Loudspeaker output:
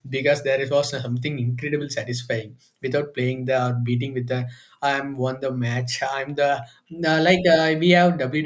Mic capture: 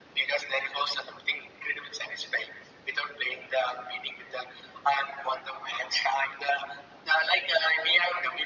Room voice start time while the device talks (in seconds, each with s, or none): none